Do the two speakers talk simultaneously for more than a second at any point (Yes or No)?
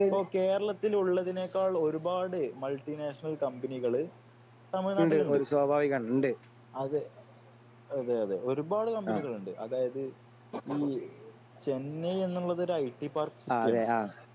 No